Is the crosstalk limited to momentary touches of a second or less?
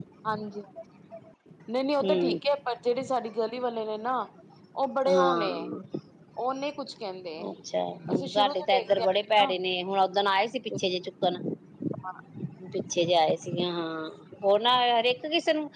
No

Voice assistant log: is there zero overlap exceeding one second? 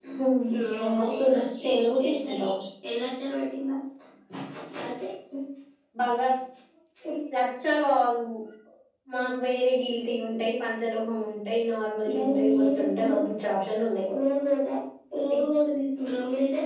No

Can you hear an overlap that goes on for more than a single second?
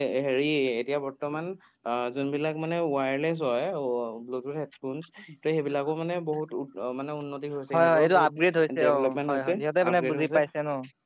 Yes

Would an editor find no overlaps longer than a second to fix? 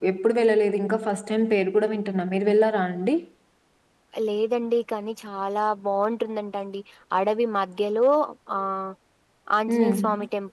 Yes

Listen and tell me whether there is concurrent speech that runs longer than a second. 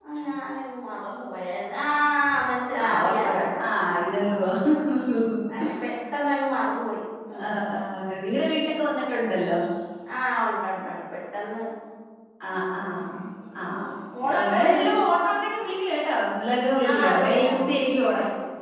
Yes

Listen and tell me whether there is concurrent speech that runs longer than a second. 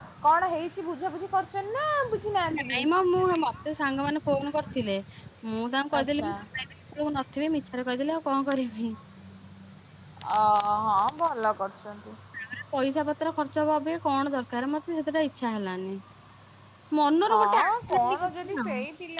Yes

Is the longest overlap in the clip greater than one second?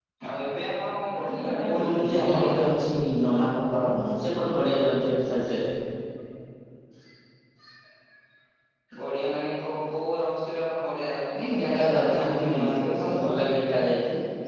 Yes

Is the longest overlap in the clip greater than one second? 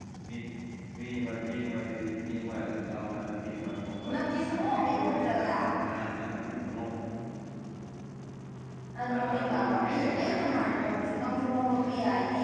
Yes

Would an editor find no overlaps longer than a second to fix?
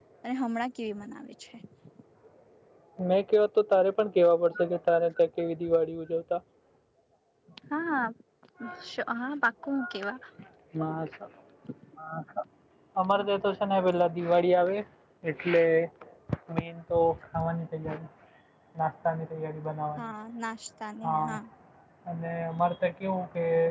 Yes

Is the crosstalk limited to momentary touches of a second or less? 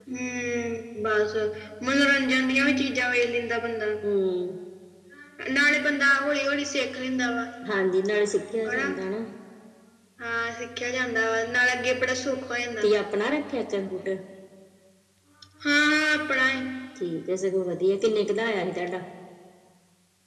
Yes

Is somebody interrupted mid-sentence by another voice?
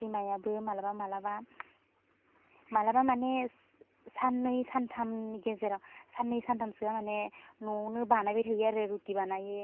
No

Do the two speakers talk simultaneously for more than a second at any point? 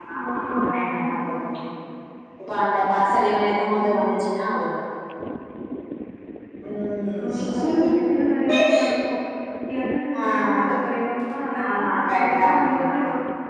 Yes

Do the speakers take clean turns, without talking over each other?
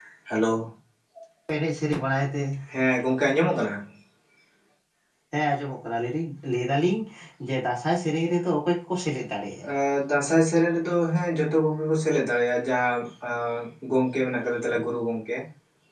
Yes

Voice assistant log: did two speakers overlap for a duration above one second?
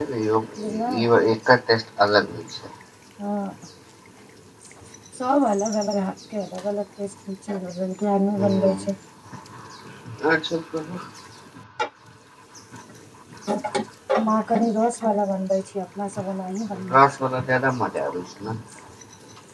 No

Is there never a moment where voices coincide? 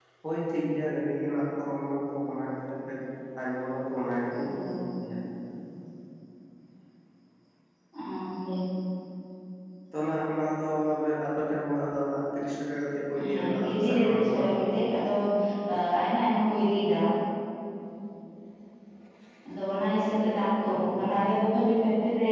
No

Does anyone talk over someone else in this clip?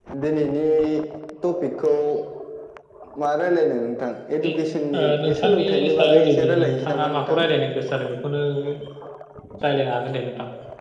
Yes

